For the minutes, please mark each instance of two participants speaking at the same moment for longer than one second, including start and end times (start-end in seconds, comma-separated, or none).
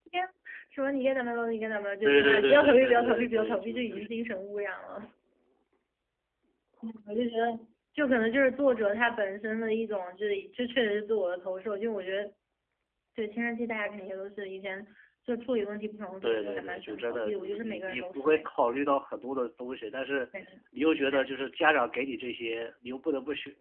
2.0-4.1, 16.2-18.5